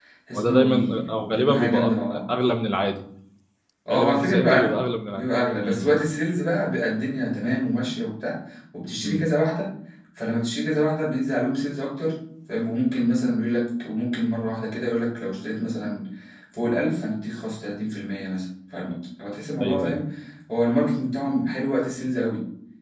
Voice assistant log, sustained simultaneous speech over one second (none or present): present